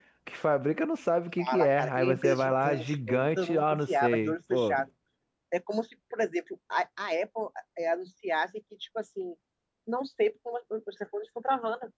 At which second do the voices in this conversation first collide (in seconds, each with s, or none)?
1.4 s